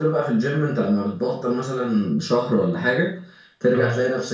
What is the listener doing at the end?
listening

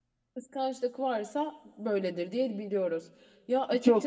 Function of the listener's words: taking over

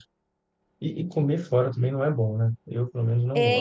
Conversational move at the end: taking over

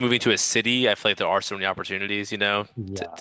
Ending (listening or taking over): listening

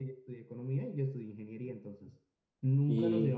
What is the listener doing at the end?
listening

